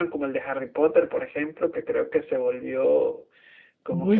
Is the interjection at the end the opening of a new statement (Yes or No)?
Yes